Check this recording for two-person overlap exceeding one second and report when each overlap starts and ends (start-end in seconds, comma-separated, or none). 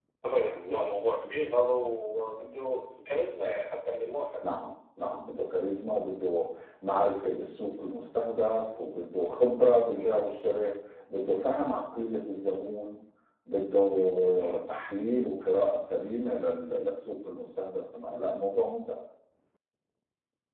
none